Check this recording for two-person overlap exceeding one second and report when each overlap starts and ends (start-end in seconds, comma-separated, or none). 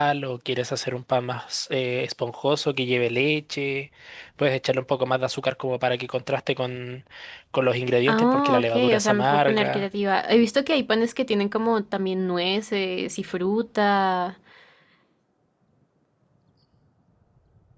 8.1-9.9